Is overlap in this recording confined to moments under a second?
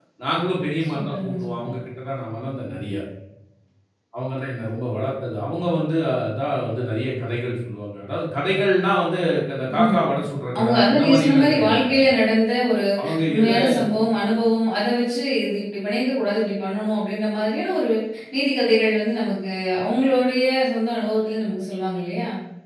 No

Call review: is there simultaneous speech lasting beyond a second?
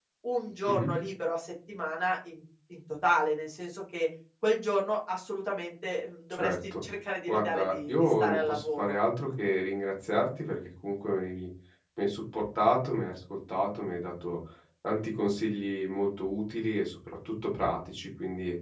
Yes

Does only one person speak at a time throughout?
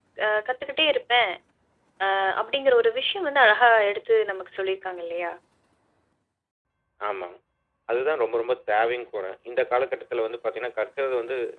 Yes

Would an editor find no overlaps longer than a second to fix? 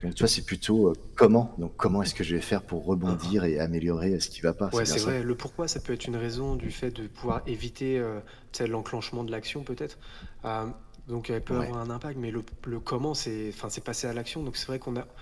Yes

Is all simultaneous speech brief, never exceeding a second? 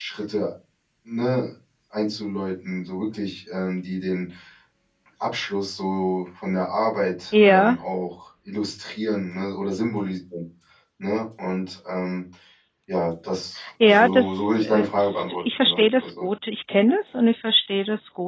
No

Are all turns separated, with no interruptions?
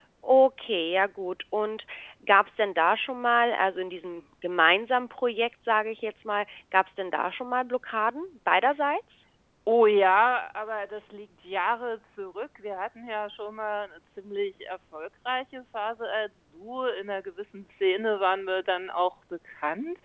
Yes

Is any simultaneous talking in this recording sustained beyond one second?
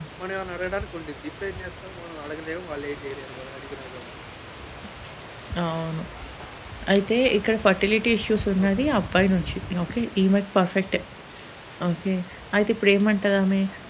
No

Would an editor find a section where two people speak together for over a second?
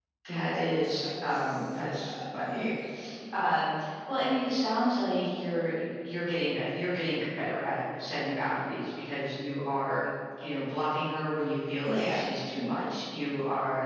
Yes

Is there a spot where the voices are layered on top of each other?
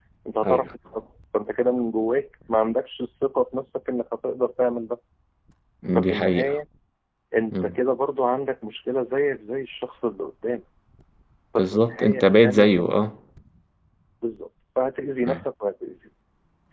Yes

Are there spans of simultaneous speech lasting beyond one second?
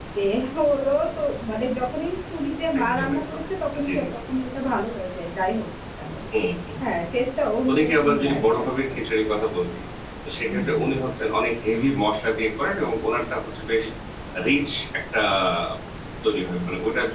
Yes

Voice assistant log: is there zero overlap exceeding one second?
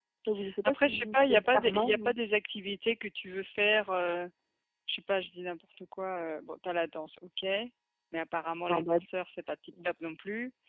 No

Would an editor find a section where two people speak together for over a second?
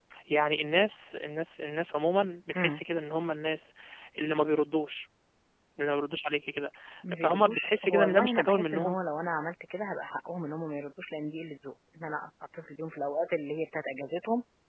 Yes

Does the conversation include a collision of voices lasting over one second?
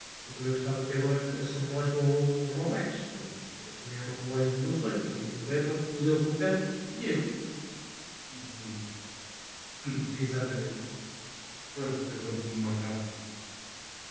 No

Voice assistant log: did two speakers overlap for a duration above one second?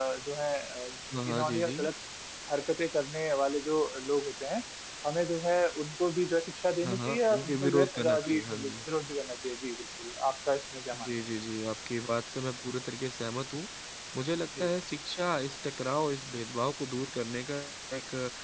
Yes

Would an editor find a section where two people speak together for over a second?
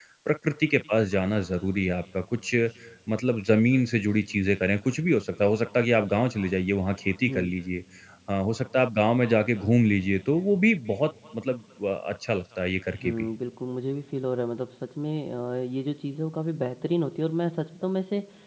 No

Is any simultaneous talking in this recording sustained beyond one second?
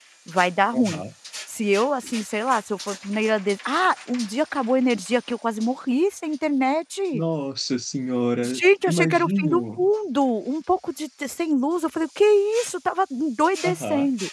Yes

